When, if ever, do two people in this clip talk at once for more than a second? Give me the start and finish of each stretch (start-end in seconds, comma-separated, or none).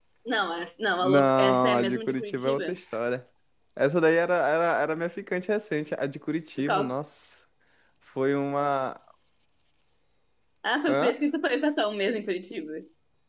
1.0-2.6